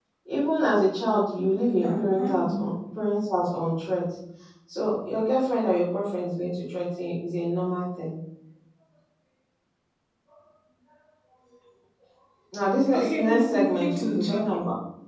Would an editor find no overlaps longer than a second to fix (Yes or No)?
No